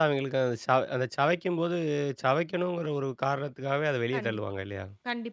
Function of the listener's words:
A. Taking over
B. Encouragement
A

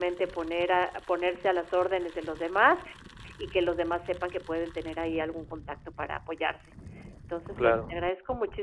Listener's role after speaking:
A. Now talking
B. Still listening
B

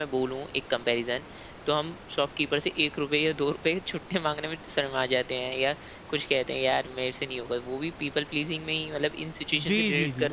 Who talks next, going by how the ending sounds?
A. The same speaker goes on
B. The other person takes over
B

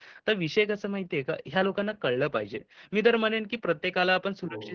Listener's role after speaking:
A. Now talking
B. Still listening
B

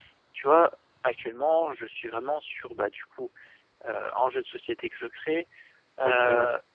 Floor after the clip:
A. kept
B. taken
A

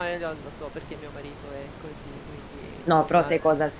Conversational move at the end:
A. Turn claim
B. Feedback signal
A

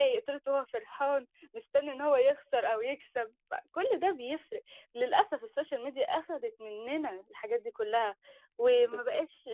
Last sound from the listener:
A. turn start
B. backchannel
B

